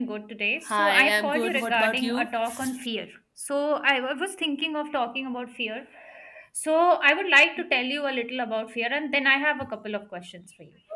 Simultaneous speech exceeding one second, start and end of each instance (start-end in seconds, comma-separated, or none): 0.7-2.3